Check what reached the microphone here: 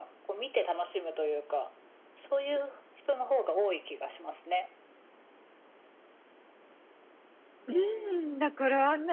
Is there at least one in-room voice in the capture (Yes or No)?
Yes